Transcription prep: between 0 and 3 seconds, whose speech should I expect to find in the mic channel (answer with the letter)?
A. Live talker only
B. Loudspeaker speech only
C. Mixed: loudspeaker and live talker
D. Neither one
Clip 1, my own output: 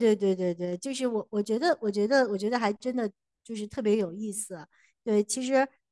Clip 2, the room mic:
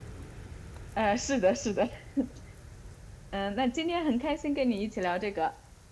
A